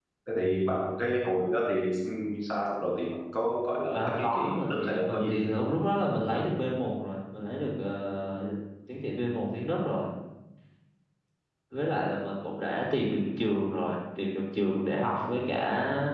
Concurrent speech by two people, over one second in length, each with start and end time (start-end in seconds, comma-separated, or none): 3.9-5.4